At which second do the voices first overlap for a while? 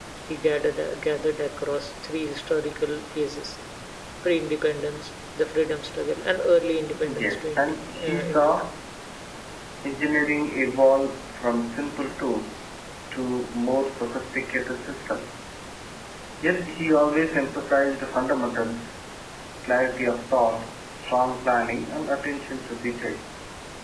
6.9 s

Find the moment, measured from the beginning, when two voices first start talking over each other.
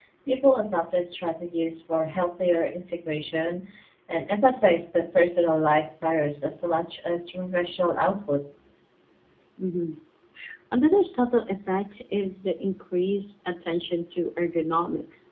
none

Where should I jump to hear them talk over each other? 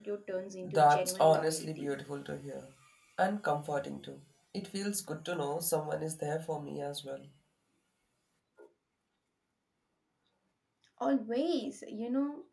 0.7 s

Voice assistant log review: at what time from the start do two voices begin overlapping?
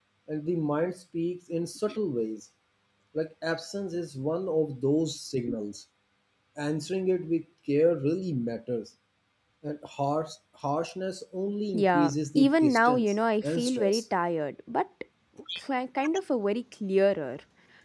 11.7 s

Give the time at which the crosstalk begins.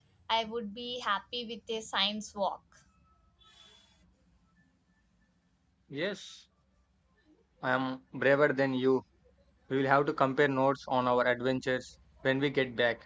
none

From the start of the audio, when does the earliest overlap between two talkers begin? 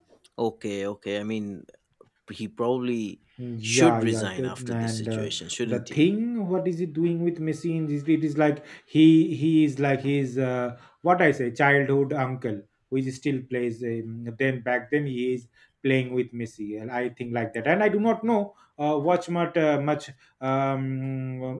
3.6 s

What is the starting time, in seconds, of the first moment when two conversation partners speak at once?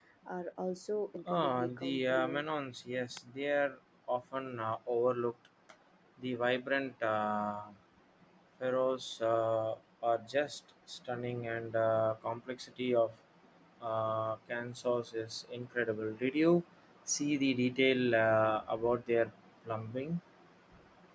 1.3 s

